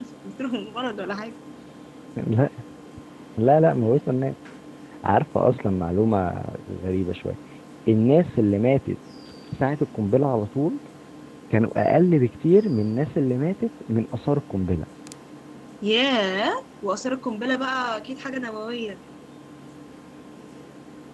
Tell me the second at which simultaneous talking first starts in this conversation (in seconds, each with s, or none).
none